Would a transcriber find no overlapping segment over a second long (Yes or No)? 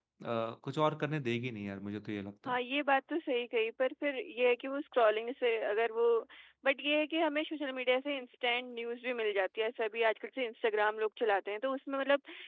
Yes